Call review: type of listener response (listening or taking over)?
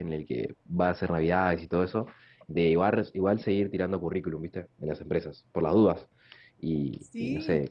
listening